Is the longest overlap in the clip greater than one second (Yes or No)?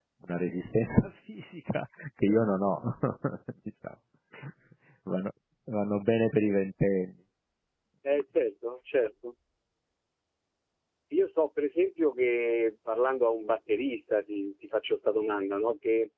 No